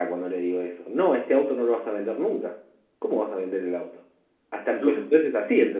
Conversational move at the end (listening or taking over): listening